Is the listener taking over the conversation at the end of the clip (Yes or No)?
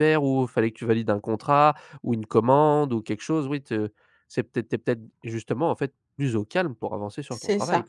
Yes